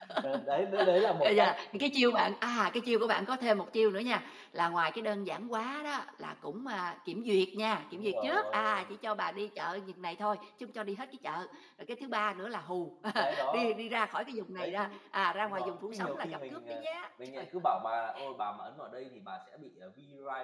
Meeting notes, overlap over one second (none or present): present